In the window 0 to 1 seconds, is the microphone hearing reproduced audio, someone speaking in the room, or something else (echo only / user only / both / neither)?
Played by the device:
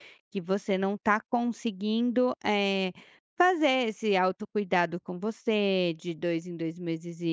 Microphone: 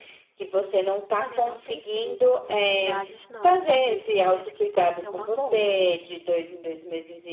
echo only